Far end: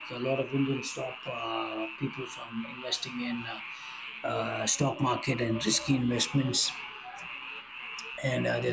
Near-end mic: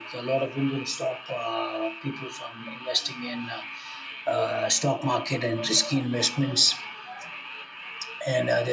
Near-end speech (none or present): none